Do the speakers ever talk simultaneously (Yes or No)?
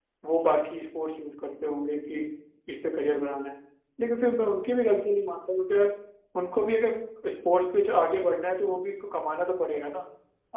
No